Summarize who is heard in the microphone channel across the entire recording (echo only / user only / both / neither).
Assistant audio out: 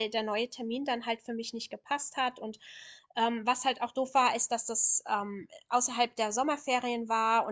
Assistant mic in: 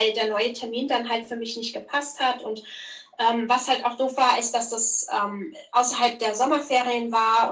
echo only